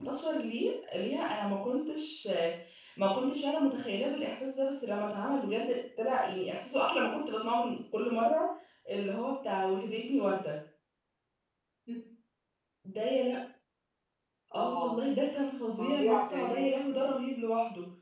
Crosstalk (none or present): present